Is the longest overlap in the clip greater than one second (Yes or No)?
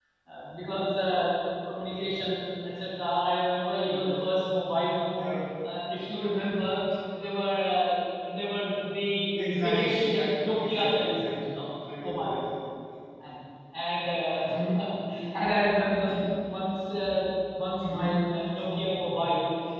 Yes